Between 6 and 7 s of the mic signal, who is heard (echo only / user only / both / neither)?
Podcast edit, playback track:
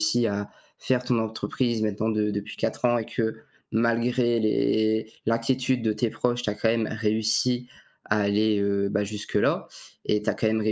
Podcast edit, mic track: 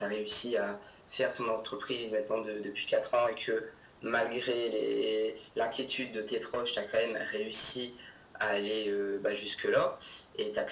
echo only